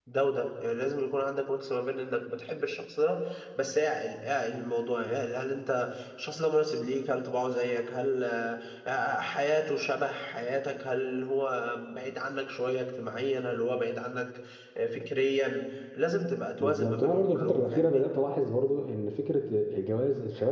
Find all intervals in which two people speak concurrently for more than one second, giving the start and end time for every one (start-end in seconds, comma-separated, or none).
16.6-18.1